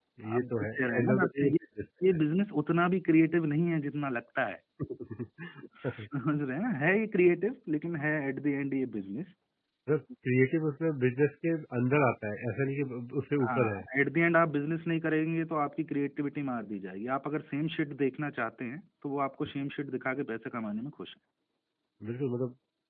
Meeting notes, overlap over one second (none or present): present